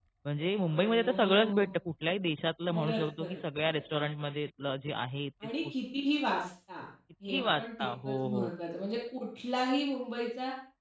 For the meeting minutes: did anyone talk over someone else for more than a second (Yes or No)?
Yes